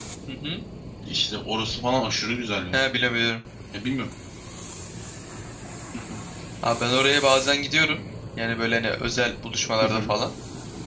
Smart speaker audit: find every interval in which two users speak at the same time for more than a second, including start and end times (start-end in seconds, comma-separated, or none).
none